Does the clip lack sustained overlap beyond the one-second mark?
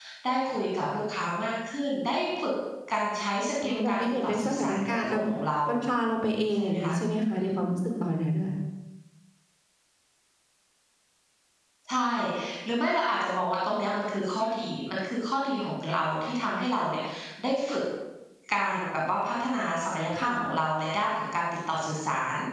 No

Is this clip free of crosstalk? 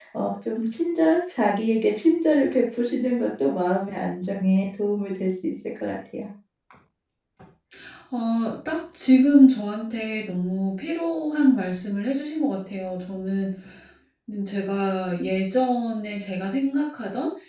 Yes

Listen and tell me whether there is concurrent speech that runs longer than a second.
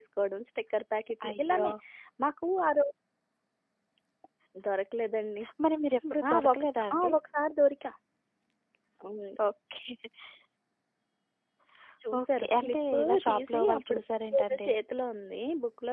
Yes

